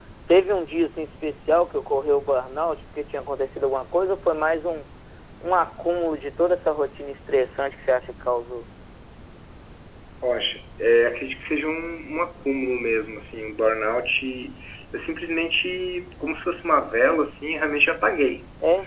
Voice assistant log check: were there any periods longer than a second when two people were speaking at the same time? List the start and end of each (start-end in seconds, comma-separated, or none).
none